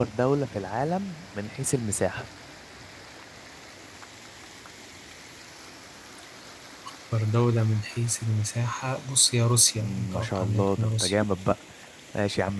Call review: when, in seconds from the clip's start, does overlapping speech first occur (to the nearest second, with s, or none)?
10 s